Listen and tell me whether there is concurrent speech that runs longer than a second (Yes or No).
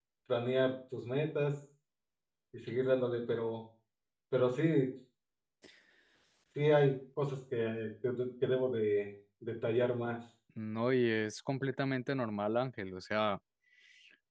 No